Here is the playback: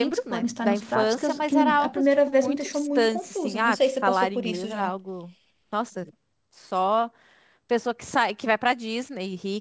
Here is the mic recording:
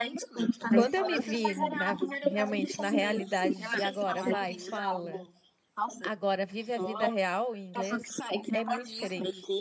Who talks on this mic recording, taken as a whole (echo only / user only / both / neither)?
both